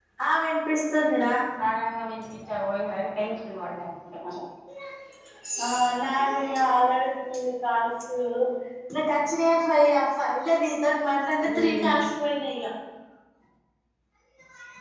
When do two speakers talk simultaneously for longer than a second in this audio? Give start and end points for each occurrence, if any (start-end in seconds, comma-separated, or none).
none